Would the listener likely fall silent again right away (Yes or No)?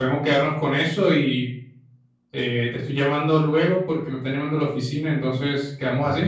No